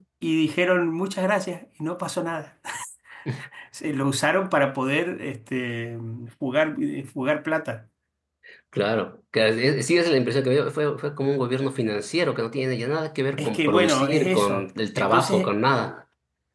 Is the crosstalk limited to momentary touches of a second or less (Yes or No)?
No